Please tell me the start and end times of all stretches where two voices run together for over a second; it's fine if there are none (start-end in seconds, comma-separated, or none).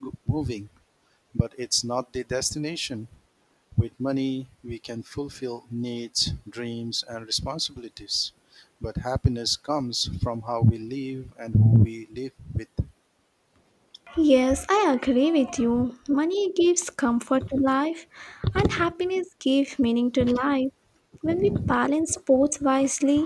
none